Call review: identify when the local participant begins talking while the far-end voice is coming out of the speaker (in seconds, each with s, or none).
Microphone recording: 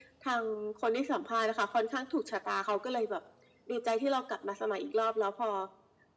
none